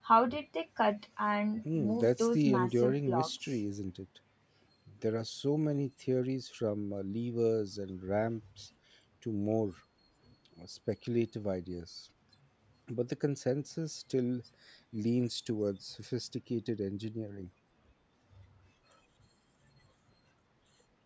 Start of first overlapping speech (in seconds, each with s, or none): 1.6 s